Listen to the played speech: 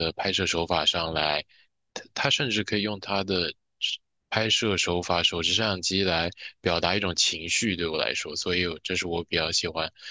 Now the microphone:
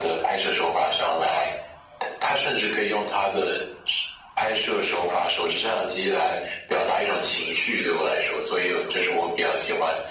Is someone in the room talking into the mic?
No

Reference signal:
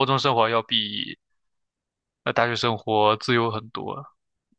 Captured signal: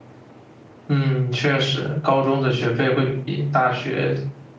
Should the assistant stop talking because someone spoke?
Yes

